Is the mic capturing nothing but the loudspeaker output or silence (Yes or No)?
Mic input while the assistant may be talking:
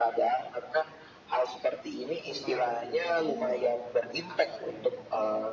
No